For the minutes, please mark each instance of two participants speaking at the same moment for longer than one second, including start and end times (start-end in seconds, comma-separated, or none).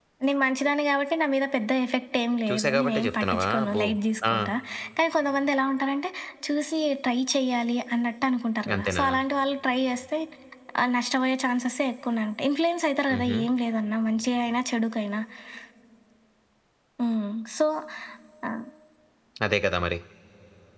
2.5-3.8